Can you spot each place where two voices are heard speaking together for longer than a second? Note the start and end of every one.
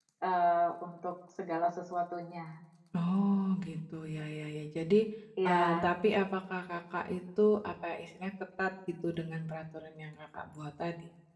none

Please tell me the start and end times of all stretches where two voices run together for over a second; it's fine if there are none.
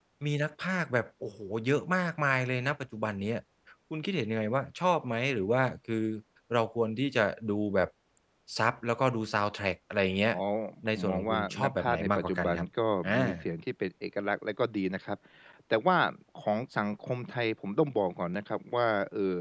10.9-12.7

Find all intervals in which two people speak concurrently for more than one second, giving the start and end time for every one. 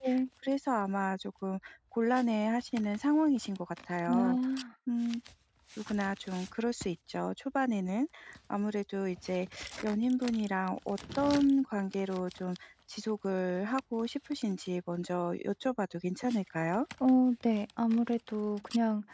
none

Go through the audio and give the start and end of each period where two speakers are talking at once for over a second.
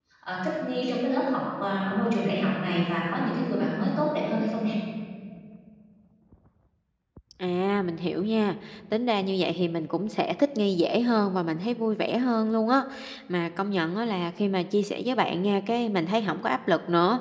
none

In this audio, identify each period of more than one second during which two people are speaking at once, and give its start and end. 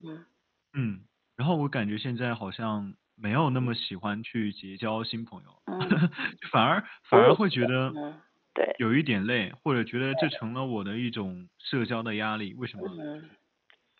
none

